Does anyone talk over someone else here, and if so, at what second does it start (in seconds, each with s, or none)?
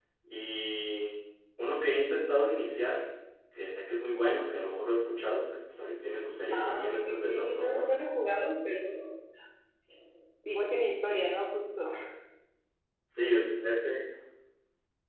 6.5 s